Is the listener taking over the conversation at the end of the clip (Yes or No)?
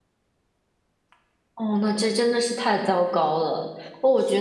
No